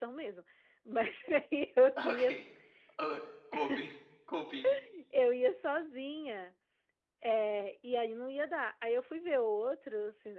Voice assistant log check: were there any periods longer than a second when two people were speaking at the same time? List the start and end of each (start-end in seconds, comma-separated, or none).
none